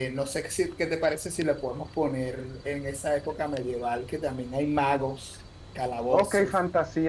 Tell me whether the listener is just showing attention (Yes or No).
No